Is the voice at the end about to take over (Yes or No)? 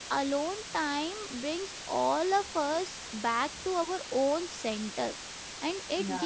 No